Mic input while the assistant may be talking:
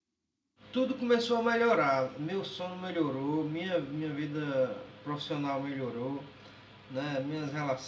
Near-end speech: present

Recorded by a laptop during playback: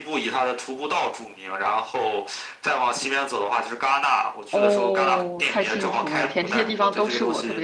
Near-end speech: present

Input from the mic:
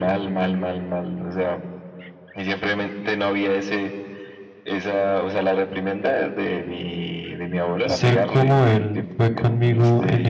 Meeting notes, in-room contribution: present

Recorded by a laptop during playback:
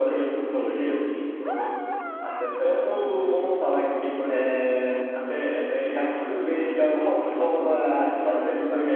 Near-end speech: none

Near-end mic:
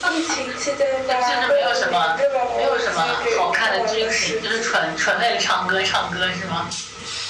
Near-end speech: none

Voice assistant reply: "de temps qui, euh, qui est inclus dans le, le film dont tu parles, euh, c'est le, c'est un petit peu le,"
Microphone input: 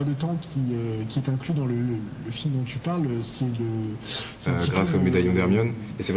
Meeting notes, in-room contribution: present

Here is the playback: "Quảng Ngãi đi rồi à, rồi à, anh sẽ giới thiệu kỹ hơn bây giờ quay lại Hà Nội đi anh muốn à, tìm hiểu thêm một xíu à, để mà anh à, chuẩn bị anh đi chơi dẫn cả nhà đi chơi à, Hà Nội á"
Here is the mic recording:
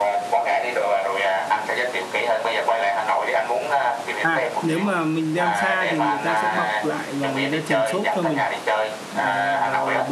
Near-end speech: present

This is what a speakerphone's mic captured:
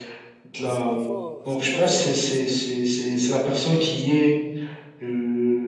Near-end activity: present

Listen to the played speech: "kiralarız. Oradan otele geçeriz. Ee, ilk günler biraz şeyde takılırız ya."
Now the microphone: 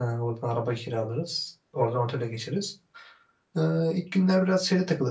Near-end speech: none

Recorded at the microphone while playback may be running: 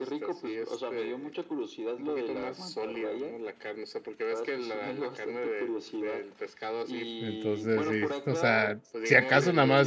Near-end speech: present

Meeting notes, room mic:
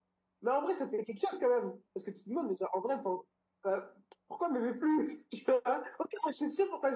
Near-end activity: none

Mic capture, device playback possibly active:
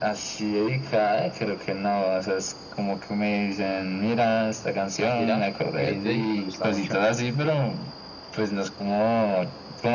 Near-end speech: present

